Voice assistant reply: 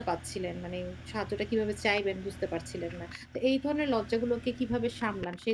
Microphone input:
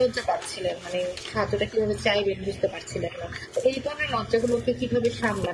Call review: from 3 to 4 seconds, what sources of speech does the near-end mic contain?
echo only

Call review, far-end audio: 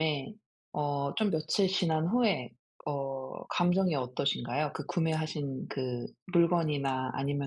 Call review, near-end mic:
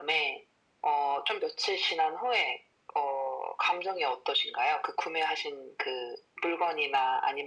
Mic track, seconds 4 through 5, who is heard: echo only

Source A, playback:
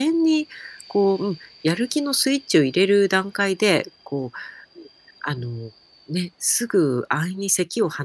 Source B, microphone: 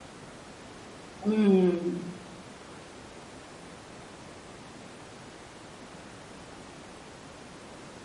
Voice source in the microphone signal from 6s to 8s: neither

